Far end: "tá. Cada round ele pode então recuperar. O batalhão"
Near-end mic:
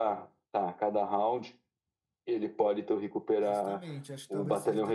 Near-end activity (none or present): present